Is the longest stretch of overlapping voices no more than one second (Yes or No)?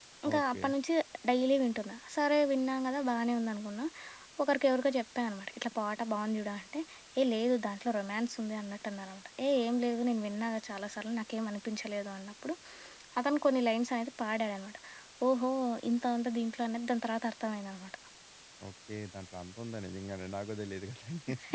Yes